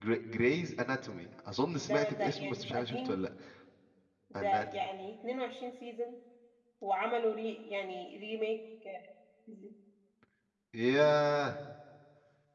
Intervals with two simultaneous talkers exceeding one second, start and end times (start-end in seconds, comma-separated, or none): 1.8-3.2